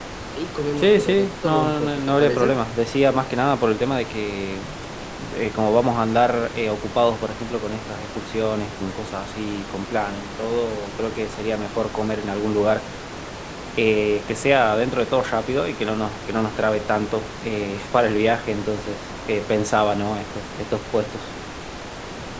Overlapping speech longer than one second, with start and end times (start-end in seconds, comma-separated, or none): 0.8-2.5